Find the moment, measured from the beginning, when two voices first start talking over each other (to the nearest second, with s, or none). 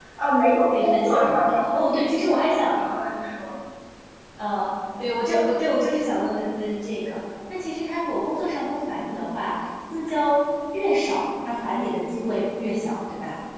1 s